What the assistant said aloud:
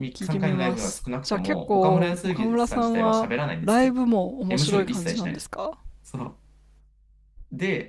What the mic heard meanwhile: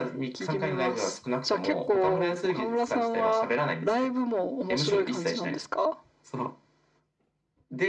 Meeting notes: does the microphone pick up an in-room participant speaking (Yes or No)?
No